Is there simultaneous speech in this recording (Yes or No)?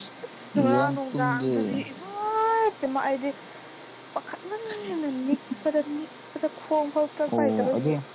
Yes